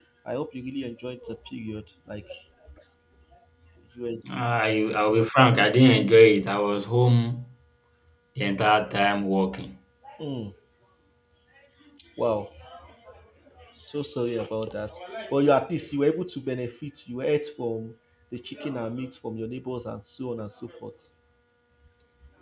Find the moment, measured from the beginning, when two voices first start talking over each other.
none

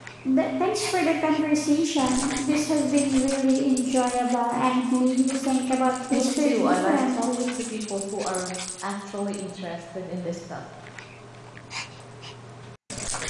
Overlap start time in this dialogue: 6 s

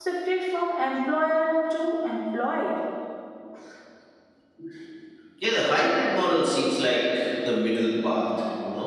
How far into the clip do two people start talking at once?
none

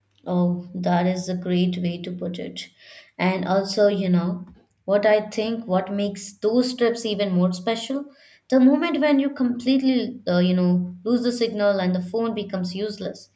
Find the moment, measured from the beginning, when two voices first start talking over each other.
none

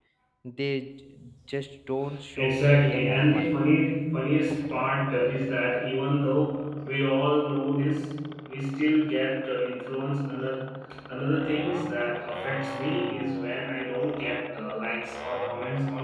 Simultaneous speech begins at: 2 s

